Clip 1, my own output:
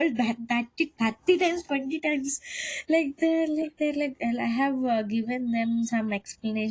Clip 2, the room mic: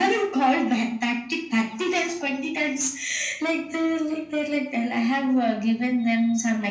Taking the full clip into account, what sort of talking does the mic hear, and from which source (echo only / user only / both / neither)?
echo only